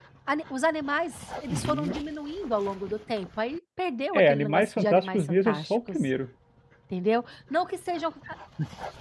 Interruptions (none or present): present